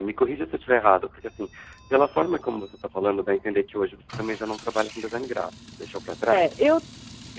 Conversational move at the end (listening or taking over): taking over